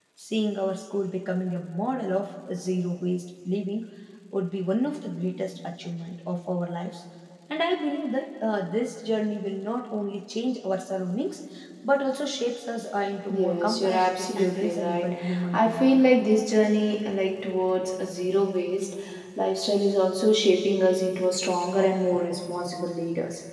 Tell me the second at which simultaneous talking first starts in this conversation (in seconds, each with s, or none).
13.3 s